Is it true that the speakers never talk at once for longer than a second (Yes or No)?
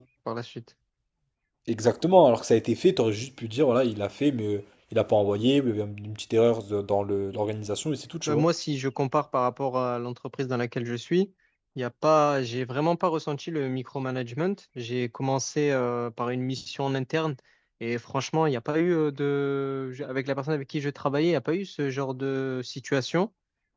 Yes